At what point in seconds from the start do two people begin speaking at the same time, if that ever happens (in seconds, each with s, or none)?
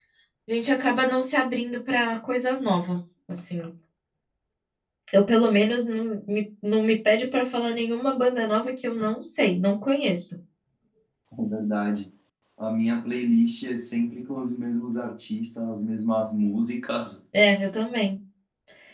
none